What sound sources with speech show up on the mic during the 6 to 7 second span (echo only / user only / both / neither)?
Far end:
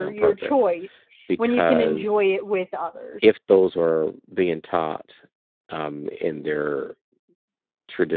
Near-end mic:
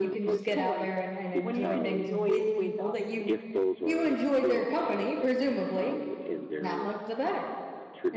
both